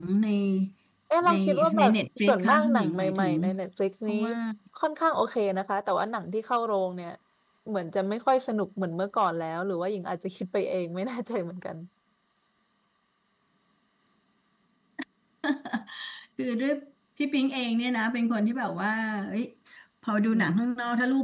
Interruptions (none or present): present